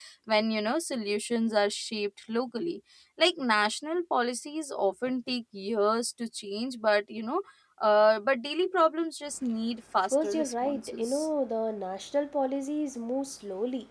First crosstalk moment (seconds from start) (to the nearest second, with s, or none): 10 s